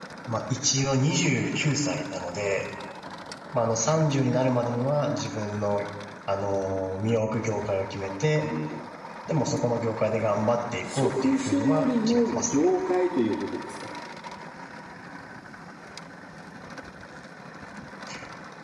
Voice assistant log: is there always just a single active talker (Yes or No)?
No